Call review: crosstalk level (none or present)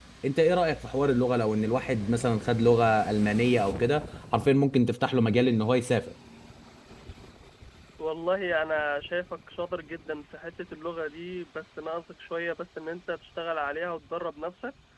none